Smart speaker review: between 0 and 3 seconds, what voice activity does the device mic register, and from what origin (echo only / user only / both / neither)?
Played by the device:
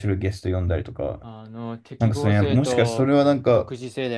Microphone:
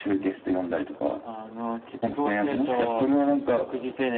echo only